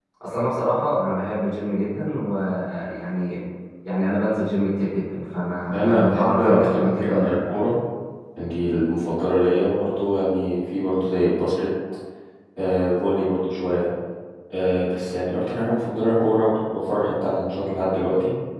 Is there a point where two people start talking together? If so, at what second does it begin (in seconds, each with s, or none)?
5.7 s